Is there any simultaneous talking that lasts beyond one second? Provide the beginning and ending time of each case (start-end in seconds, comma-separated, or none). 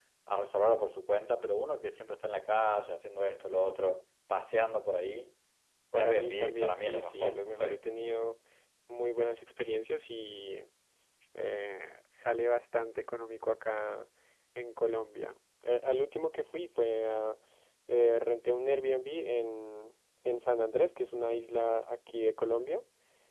5.9-7.8